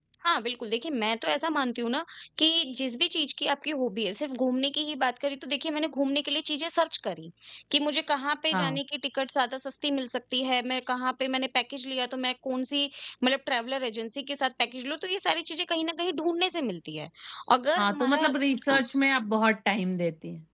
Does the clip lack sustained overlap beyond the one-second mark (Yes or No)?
Yes